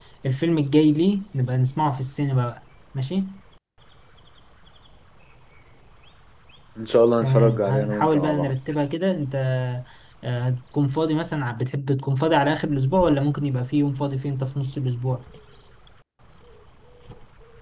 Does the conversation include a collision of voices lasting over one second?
Yes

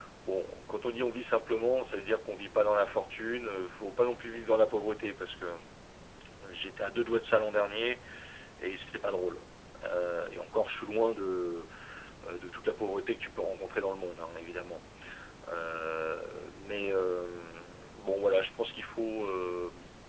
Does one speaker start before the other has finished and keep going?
No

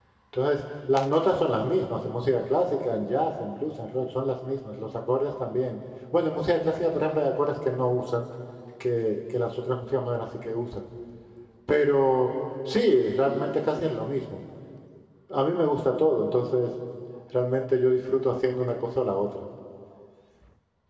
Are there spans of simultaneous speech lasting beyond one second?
No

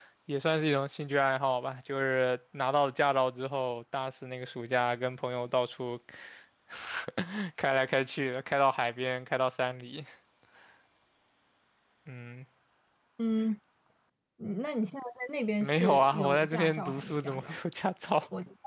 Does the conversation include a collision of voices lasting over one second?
Yes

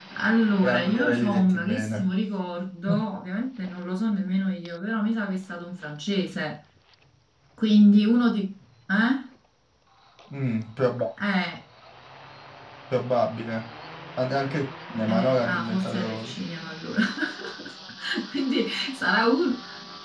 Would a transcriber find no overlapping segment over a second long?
No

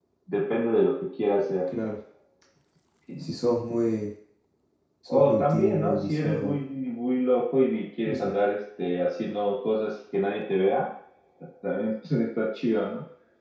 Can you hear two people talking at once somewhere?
Yes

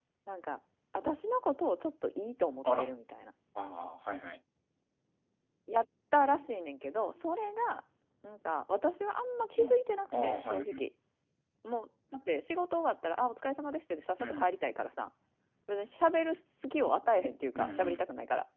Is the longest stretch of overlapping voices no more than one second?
No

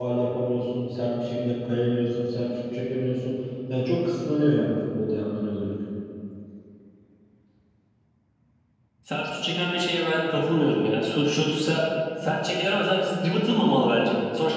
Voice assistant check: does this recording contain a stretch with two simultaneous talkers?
No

